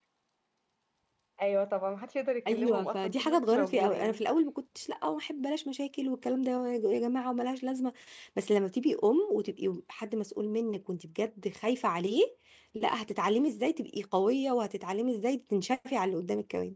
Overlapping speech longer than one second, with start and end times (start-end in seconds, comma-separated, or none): 2.5-4.2